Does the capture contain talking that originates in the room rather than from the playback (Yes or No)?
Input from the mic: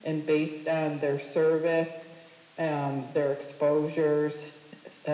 No